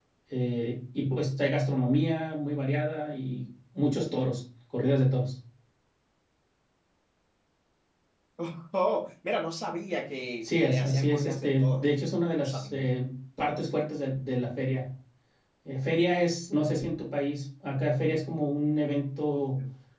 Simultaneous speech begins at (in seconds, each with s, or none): 10.4 s